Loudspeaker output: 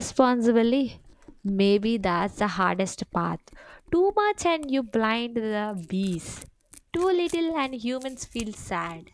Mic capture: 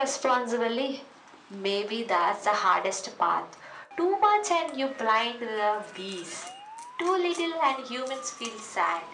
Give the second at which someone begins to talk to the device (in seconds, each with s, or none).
none